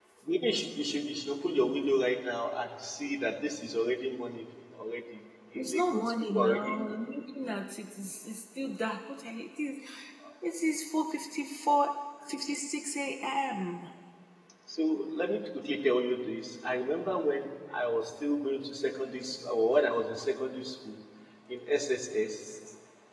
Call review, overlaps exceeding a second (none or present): present